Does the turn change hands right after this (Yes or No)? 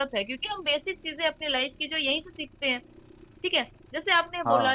No